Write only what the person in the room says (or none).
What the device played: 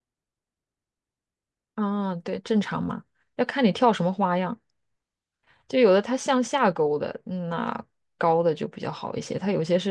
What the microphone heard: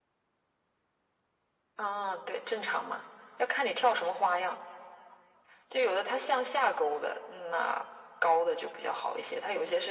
none